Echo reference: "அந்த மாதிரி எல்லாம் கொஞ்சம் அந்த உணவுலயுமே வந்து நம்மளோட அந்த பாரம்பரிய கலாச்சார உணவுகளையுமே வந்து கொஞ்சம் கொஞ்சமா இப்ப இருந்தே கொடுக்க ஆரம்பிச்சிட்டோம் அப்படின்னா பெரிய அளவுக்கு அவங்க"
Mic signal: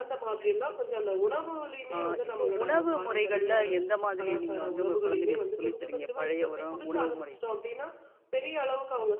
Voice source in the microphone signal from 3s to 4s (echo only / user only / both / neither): both